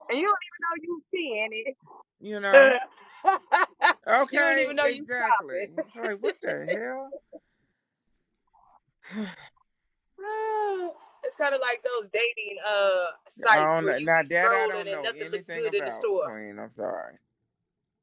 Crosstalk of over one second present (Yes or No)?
Yes